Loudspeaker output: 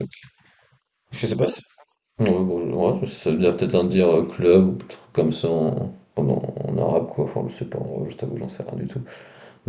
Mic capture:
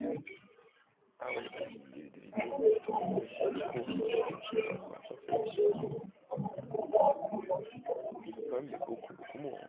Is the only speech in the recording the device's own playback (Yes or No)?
No